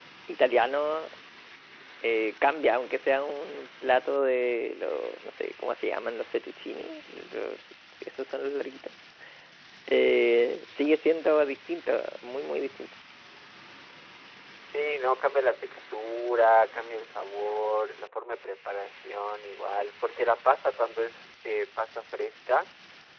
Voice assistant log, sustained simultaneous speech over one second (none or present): none